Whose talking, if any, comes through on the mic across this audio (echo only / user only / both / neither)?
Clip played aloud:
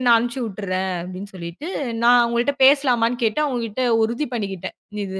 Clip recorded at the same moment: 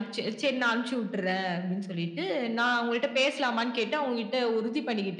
echo only